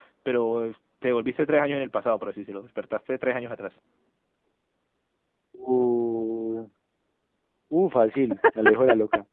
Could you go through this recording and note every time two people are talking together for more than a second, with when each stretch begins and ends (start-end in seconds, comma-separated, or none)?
none